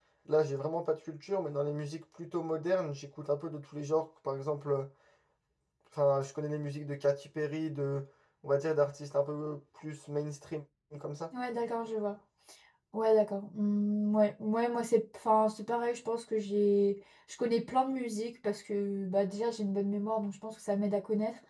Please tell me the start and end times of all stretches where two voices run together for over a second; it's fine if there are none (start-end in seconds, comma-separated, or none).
none